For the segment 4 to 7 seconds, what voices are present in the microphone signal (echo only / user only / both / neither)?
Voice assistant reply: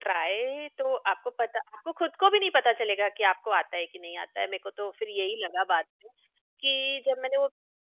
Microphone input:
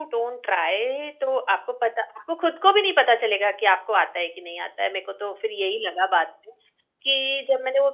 echo only